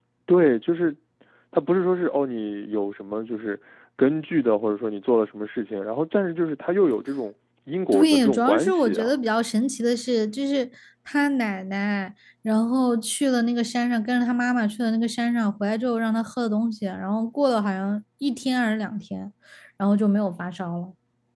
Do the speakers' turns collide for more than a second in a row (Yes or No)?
Yes